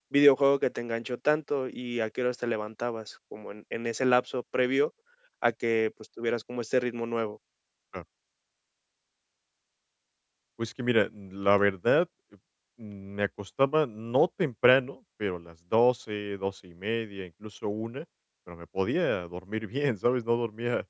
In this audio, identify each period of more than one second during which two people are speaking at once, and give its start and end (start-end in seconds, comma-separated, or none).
none